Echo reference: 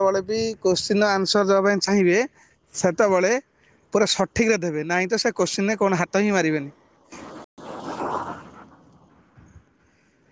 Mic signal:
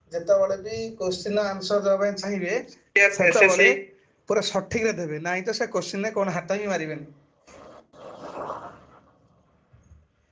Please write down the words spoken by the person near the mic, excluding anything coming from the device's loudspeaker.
ସିି ଜି ଏଲ ଏସେସି

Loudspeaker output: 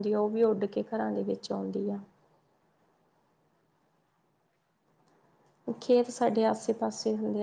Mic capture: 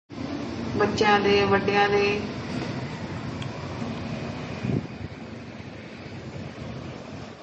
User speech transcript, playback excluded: ਬੱਚਿਆਂ ਦੇ, ਵੱਡਿਆਂ ਦੇ

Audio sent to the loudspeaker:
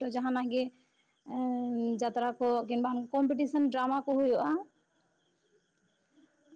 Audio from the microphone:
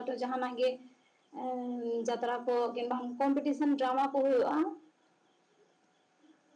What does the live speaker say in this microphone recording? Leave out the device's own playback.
none

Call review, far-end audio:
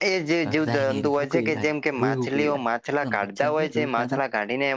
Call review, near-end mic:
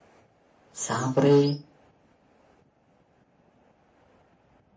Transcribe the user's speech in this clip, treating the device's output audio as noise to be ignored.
સાપ રે

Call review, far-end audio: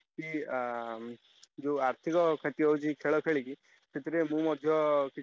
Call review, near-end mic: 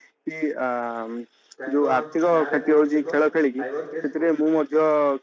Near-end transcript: ତାଙ୍କ ନାଁରେ କୌଣସି ଏକ ସାଇବର କେସ୍

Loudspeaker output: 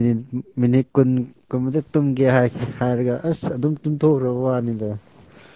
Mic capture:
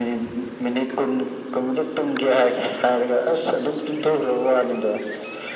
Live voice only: none

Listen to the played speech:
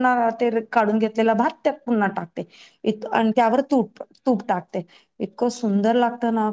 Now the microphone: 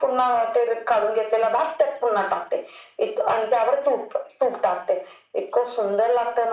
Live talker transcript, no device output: none

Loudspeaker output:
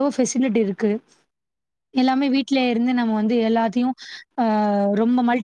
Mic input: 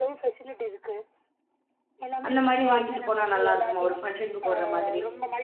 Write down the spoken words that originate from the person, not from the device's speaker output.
அந்த மாதிரி வாங்கிட்டு போனா நல்லா இருக்குமா ஒரு ஃபங்க்ஷனுக்கு போடுற மாதிரி

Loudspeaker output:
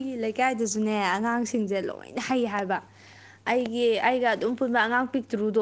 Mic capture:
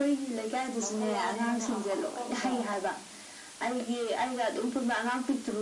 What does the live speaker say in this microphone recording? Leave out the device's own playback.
ꯂꯧꯈꯠꯂꯛꯑꯅꯤ ꯃꯅꯥ ꯑꯄꯥꯛꯄ ꯑꯝꯗ

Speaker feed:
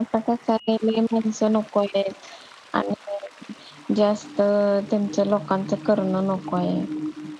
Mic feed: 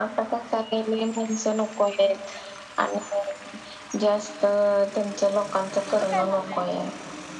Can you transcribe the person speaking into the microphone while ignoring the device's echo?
तुझ काय म्हणणं आहे वरच्यावर

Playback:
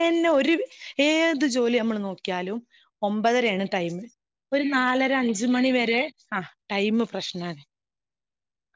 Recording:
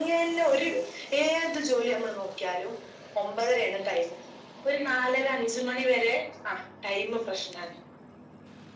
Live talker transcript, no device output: none

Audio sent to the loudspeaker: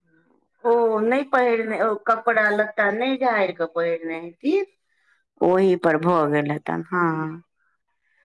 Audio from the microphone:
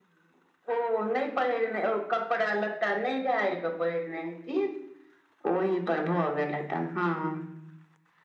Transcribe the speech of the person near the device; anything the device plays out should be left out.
none

